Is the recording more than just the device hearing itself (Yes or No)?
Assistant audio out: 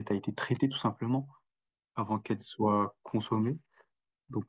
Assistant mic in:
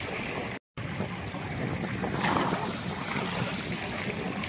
No